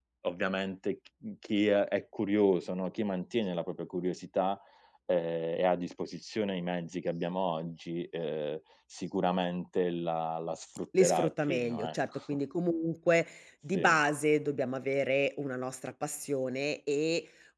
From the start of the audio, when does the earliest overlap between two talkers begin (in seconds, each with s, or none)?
11.0 s